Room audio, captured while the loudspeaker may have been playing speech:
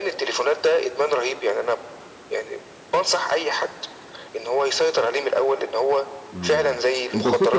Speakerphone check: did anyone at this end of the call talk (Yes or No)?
Yes